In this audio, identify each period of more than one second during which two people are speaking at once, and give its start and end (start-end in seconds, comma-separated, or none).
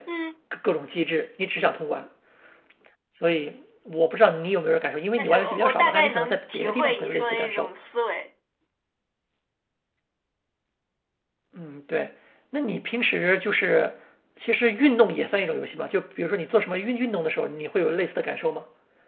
5.2-7.7